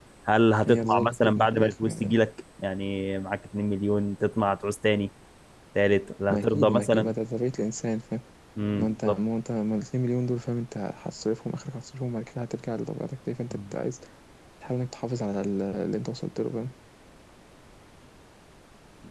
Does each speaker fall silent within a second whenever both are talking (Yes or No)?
No